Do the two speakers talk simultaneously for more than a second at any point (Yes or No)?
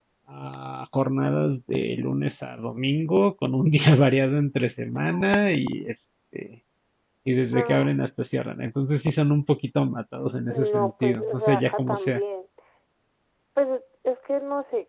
Yes